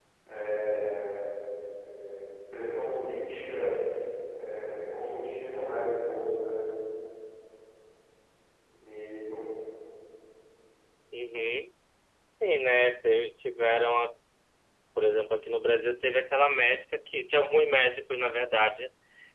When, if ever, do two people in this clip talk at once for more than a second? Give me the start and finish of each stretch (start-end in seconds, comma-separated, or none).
none